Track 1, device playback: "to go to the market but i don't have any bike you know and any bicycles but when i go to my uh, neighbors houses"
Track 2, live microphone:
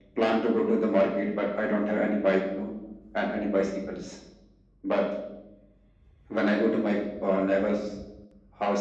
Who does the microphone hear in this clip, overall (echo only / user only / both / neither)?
echo only